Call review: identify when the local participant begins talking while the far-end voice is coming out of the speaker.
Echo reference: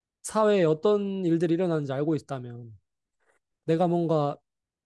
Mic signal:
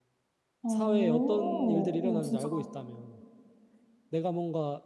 0.6 s

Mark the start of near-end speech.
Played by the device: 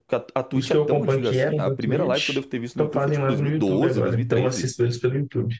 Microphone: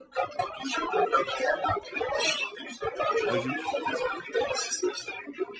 3.2 s

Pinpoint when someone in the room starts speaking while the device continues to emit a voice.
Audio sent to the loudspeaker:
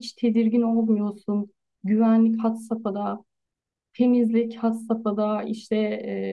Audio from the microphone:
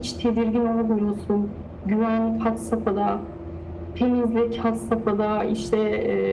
none

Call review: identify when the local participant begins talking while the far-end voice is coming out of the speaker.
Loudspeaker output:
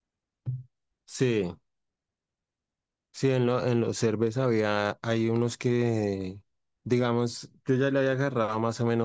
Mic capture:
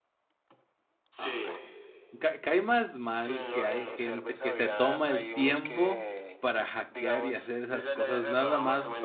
1.2 s

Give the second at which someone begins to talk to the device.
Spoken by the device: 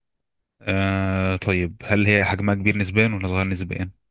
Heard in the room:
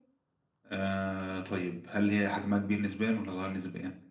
none

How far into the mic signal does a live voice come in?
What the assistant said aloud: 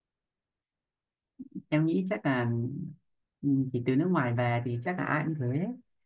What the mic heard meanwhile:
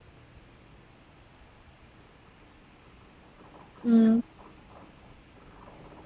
3.8 s

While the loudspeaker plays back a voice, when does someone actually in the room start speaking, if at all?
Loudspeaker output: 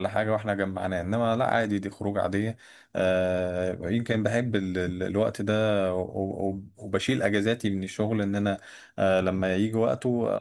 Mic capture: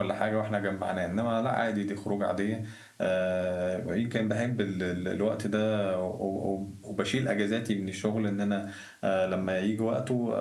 none

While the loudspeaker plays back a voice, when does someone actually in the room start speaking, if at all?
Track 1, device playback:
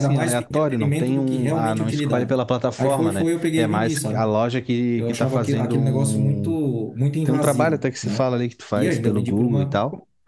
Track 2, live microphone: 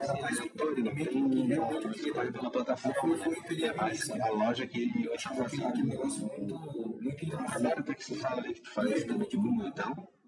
none

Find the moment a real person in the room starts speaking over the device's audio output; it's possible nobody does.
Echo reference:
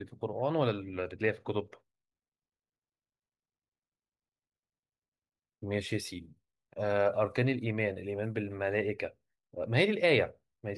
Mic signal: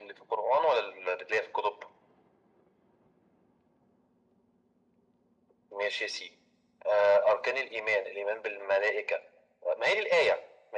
none

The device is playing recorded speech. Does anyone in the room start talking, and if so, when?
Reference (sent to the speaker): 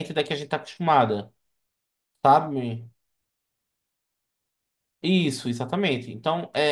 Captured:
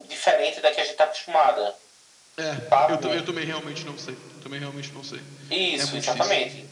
2.4 s

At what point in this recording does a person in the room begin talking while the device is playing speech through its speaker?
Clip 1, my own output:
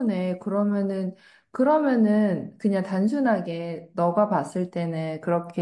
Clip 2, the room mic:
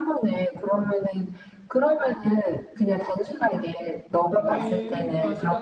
4.3 s

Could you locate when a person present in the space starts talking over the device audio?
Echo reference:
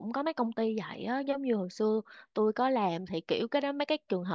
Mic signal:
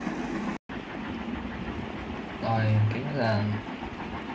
2.4 s

